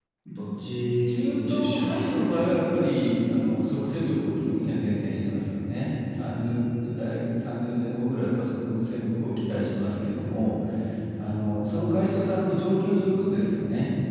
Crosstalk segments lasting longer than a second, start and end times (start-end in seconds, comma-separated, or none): 1.1-2.6